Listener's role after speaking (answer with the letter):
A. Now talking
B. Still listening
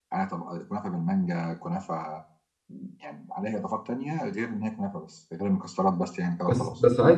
A